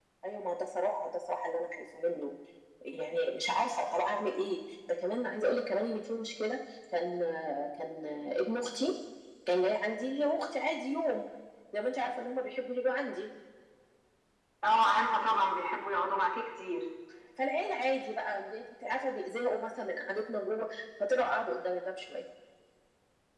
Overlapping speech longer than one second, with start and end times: none

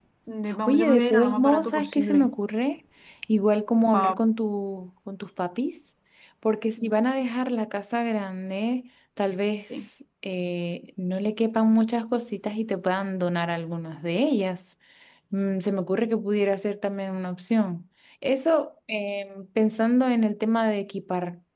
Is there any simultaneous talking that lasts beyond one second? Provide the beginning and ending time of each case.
0.7-2.3

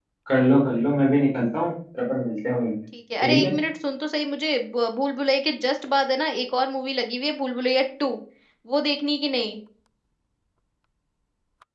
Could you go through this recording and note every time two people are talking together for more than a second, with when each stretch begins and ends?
none

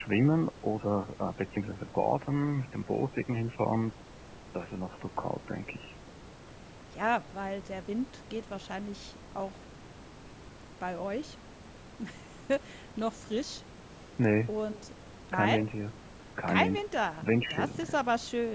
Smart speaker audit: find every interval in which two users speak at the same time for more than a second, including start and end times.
16.5-18.0

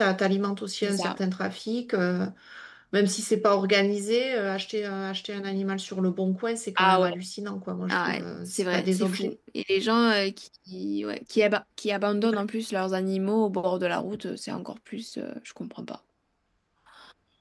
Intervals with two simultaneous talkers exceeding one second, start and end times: 7.9-9.3

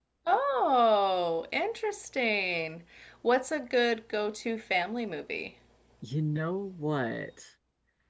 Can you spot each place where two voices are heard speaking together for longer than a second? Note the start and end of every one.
none

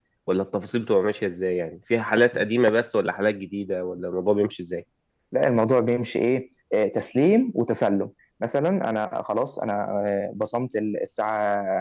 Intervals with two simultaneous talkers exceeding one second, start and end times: none

